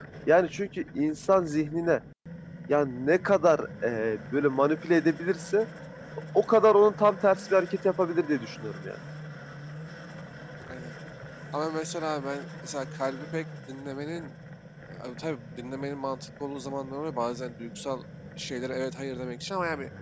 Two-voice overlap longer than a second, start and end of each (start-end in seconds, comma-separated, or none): none